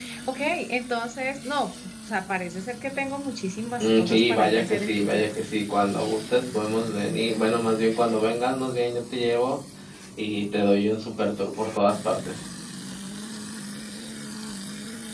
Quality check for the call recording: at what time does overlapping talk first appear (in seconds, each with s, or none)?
3.8 s